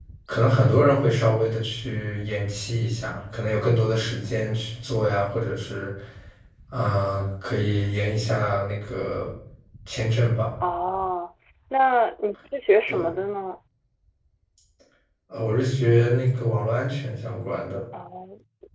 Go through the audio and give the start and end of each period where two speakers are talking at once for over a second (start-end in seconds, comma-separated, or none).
none